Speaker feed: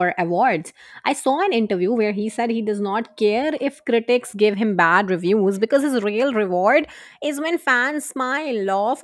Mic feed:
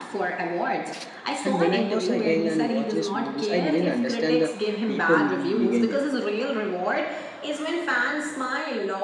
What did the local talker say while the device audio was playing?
And when I was a young and watched his movies, I didn't understand the deeper meaning behind him.

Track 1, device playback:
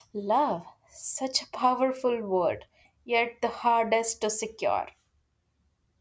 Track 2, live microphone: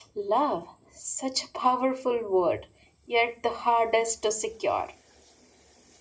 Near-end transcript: none

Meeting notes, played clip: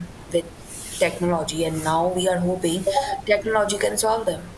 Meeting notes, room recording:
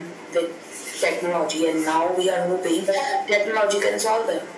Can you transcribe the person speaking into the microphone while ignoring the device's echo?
none

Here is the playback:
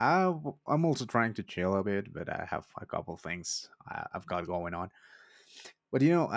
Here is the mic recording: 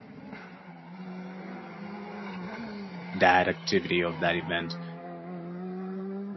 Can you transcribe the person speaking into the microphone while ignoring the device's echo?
that activity of that event

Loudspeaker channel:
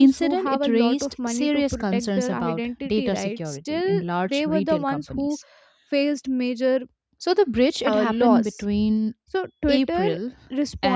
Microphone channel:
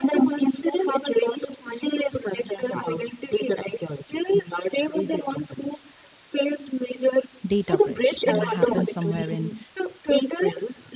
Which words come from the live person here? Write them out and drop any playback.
data breach, and it happened somewhere in

